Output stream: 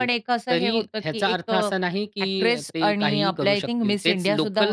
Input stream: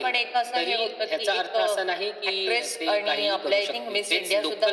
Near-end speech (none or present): none